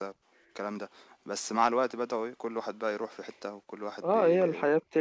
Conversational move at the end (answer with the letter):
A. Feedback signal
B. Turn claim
B